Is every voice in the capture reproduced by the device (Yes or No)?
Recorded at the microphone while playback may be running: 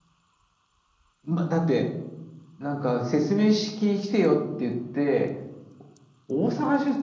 Yes